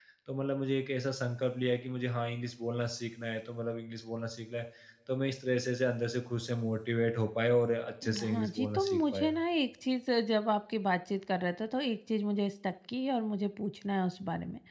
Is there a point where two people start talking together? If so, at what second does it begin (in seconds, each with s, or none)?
8.0 s